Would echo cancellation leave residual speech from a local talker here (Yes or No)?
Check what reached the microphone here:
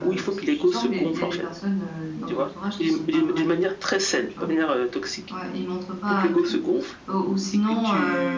Yes